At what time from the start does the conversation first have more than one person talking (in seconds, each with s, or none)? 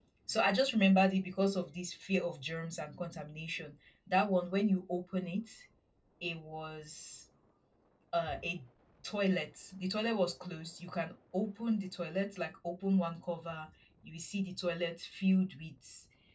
none